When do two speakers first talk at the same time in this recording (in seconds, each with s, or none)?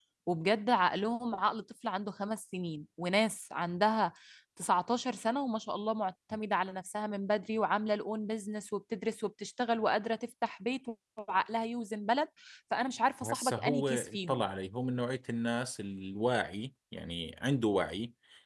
13.2 s